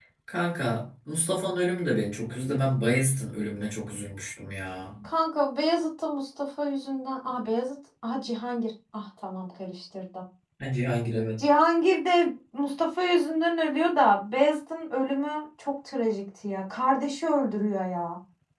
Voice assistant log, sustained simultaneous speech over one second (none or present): none